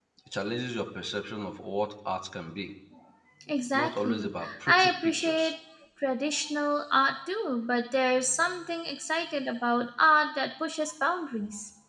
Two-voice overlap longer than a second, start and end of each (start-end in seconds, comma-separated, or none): 3.7-5.5